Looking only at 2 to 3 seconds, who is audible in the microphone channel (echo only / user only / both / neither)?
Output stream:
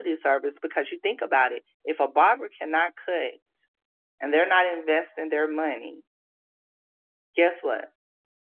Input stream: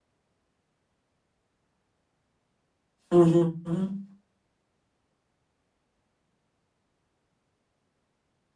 neither